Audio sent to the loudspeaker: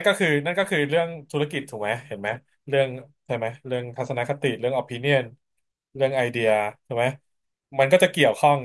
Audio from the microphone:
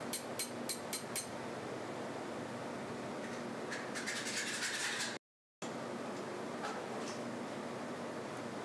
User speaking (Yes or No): No